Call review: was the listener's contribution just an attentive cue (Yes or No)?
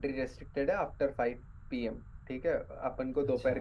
Yes